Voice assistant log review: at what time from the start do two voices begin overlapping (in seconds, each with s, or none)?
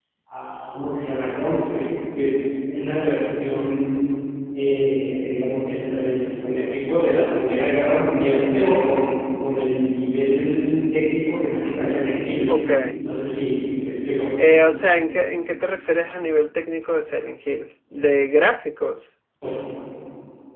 none